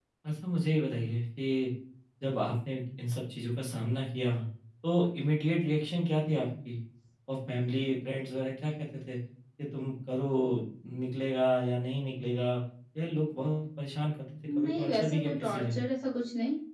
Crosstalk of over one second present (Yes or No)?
Yes